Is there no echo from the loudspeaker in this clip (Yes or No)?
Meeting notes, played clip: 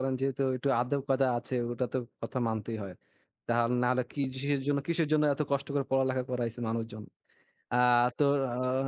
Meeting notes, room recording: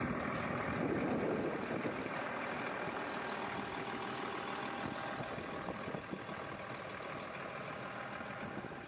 Yes